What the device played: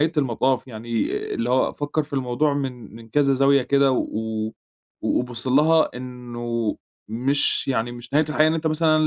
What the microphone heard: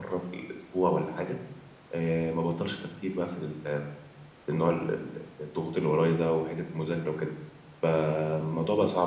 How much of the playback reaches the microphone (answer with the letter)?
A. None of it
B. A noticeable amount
A